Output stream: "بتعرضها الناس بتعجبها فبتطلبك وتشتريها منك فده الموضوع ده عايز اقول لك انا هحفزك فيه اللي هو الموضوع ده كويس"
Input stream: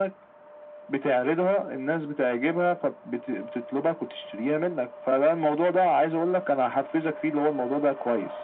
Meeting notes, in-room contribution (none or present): none